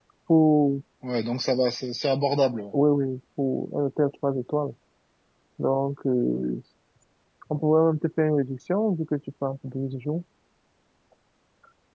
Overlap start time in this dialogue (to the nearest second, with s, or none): none